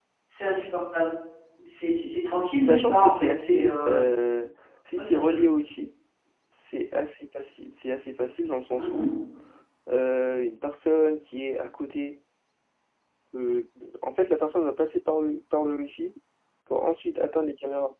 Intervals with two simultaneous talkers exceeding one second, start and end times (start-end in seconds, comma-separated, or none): 2.6-4.0